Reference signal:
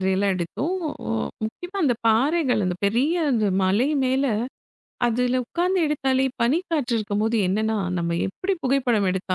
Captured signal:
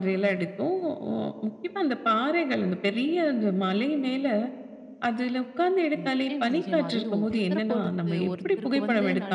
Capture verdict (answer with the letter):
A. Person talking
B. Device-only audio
A